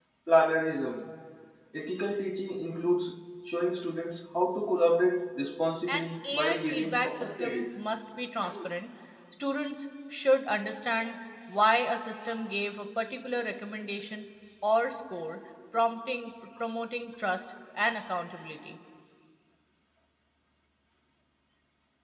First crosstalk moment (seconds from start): 5.9 s

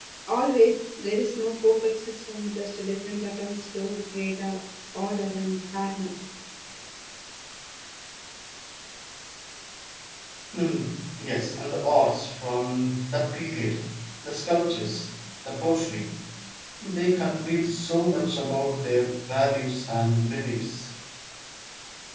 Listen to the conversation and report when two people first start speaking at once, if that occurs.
none

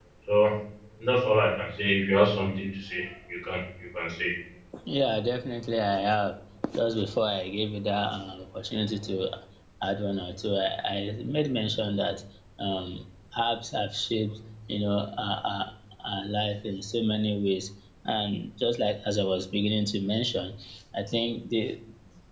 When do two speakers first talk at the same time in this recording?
none

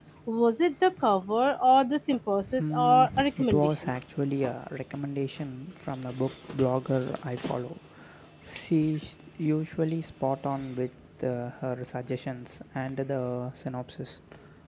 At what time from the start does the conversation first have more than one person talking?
2.4 s

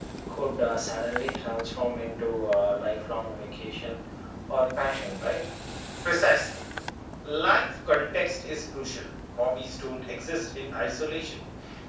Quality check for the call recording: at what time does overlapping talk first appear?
none

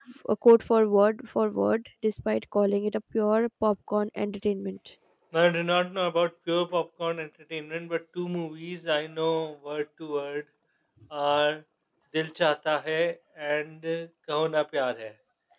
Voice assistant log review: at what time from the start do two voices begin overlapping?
none

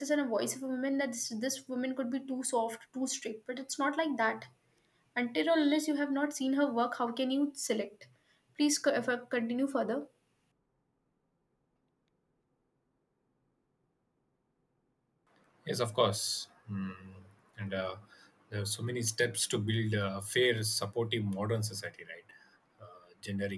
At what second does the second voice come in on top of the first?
none

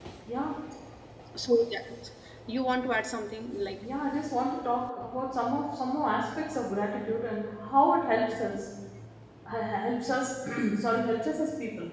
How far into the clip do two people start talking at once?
none

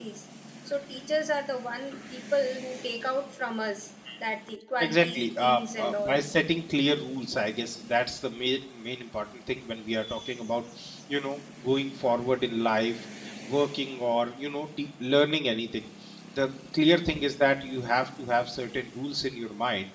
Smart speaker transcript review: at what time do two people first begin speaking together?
4.8 s

